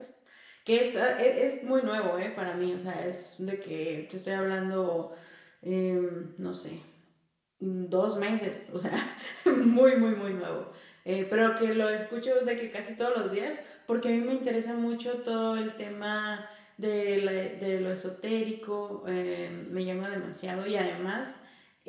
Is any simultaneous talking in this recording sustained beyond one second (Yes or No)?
No